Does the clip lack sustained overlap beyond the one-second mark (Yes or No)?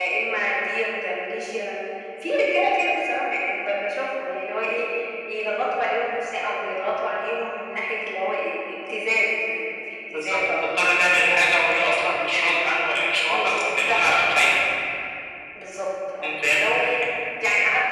No